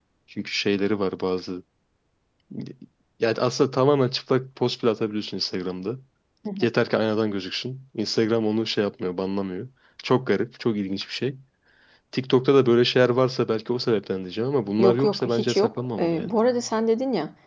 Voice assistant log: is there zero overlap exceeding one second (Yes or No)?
No